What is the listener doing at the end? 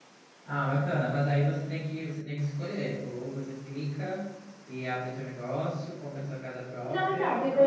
taking over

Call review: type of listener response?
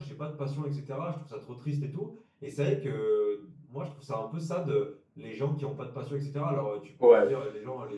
listening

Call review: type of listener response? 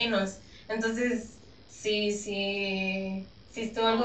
taking over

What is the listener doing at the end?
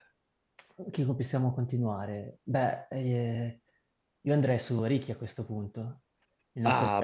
taking over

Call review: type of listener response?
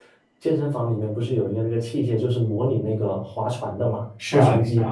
taking over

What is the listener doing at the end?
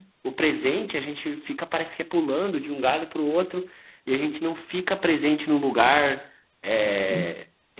listening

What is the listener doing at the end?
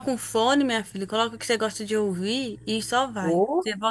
taking over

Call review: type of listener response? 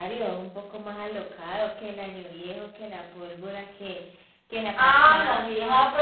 taking over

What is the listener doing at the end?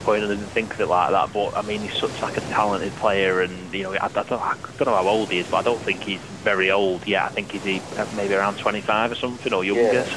listening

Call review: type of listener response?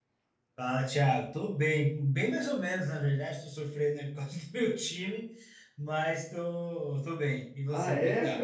taking over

